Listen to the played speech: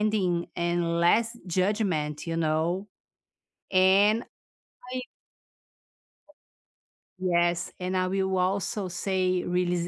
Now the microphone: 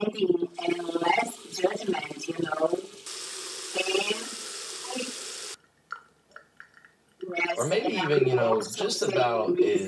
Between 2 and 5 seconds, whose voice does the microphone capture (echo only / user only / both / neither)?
echo only